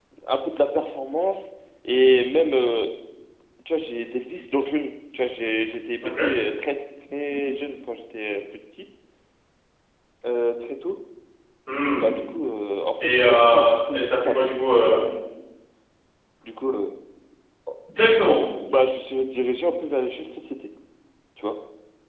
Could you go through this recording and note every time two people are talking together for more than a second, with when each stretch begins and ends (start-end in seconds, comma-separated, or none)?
13.0-14.4